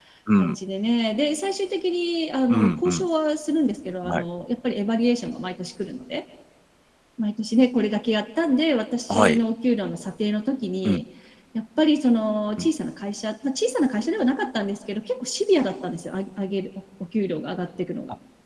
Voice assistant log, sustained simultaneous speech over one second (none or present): none